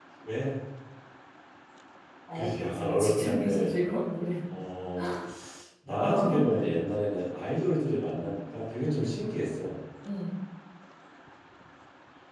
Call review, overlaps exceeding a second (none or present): present